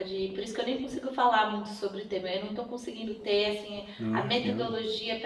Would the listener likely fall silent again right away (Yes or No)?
Yes